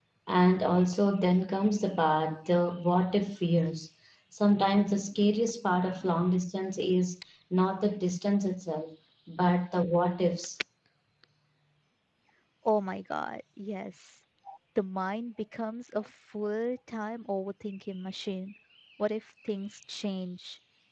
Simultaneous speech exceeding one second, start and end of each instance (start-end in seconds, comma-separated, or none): none